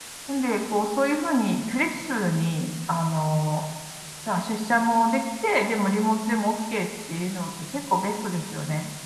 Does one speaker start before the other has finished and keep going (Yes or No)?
No